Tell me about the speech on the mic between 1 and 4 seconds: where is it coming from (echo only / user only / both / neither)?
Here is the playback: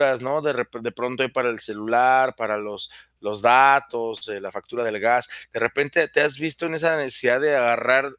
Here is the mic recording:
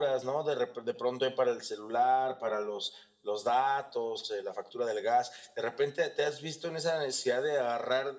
echo only